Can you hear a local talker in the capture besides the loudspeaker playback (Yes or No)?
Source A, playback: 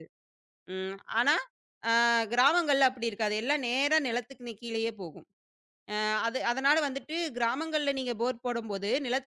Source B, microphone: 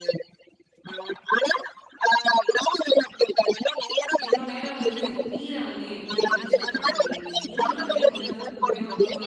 Yes